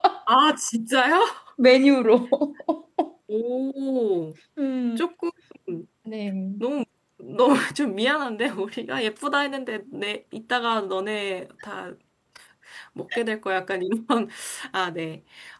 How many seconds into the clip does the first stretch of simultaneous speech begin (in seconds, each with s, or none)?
none